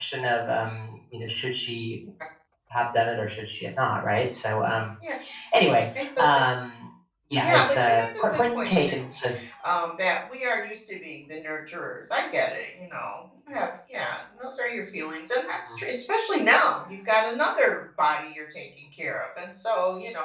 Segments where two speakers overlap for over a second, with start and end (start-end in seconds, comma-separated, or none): 7.4-9.1